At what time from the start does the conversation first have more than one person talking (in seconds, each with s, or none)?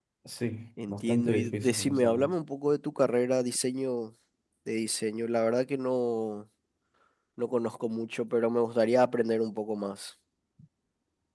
0.9 s